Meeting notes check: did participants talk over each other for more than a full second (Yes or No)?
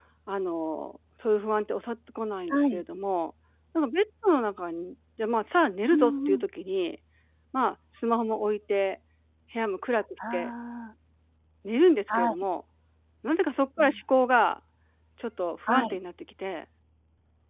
No